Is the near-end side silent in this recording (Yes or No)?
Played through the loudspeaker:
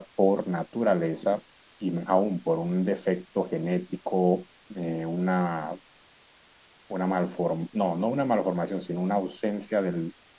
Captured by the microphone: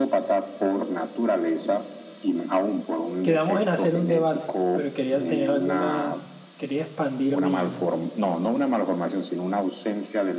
No